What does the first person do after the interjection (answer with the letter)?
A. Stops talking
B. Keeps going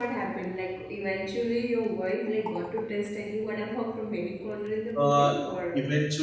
A